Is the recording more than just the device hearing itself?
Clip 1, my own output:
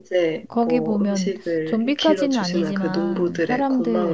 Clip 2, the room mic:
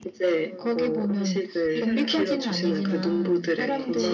Yes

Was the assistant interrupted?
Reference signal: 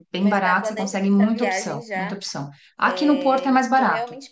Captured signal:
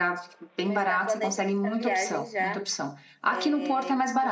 No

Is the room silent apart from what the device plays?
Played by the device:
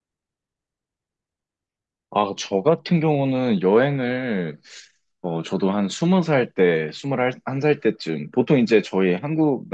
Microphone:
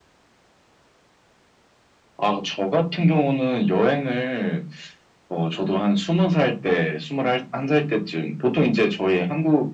Yes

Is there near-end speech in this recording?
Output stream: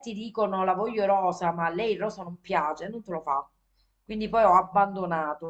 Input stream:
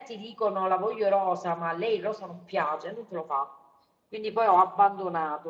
No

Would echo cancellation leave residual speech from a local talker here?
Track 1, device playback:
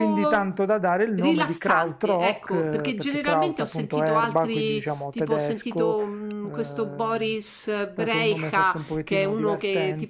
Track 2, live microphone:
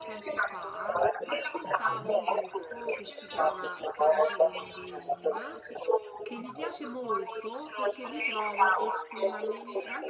Yes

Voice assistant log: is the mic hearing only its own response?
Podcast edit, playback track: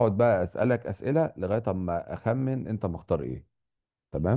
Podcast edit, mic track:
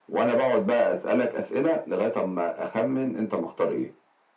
Yes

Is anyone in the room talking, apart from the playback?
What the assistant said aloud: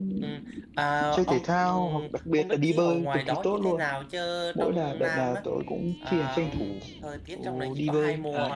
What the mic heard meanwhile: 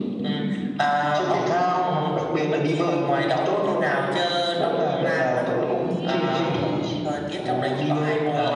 No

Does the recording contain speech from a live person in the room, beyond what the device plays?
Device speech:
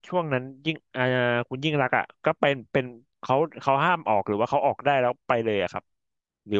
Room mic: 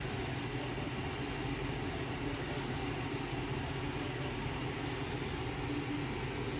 No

